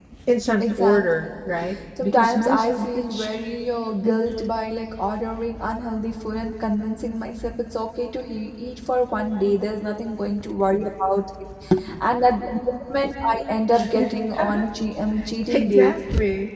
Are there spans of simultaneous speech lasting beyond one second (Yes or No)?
Yes